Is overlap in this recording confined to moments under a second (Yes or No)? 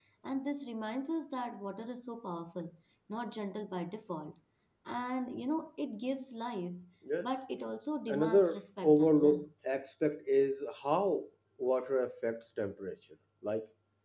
No